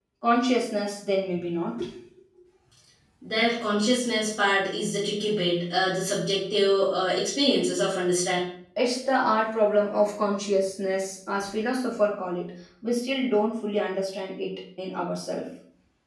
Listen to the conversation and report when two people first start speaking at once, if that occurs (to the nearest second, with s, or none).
none